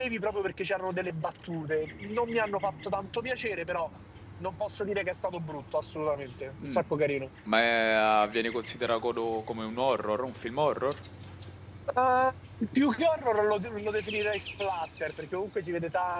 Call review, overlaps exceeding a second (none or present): none